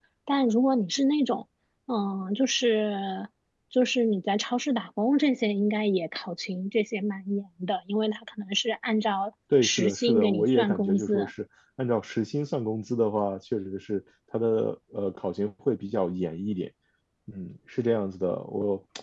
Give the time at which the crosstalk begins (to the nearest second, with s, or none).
10 s